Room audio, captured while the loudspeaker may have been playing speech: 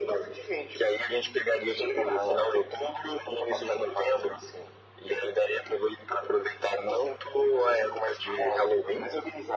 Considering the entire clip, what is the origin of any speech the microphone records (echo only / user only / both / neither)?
echo only